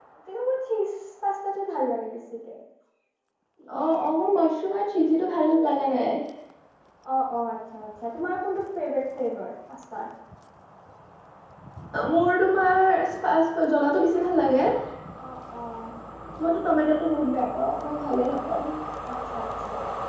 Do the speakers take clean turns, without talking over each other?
Yes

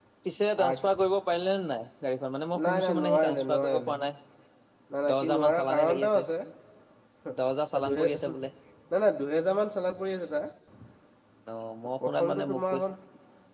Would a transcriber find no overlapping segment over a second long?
No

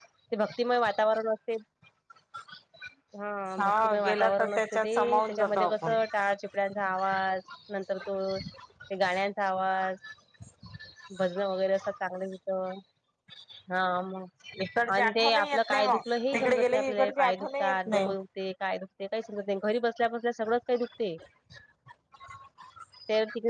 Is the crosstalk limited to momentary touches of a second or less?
No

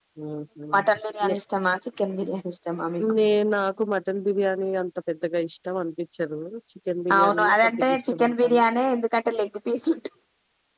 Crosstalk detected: Yes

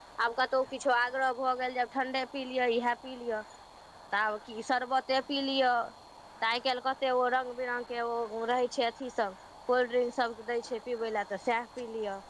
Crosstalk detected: No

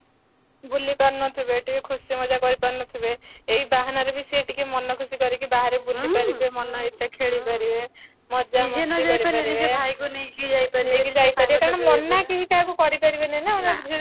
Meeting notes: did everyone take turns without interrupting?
No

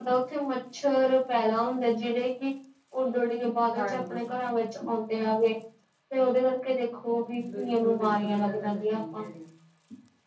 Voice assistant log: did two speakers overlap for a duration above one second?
Yes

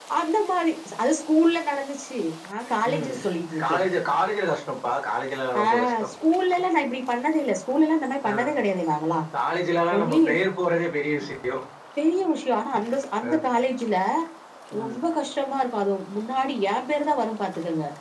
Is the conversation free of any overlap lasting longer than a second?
Yes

